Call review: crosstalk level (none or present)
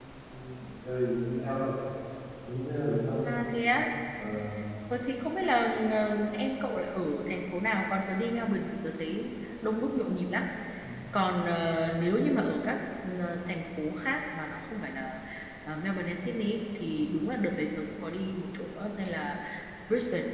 none